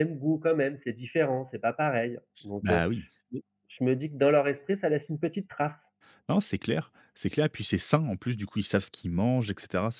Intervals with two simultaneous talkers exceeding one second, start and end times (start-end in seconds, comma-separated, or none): none